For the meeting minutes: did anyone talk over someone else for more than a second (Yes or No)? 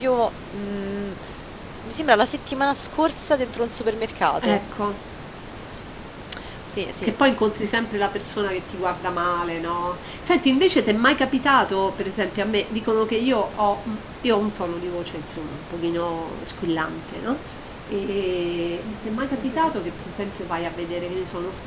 No